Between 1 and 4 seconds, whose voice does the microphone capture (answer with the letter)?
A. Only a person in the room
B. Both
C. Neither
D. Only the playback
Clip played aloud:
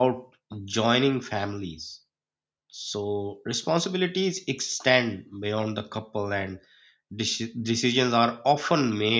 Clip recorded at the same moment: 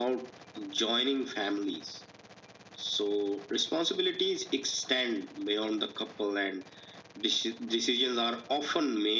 D